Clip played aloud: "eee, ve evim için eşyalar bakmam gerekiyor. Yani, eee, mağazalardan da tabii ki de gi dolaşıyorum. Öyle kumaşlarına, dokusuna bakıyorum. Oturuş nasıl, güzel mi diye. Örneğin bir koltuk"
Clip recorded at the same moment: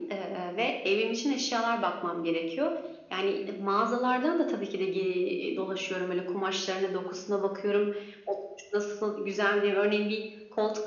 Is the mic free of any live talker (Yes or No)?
Yes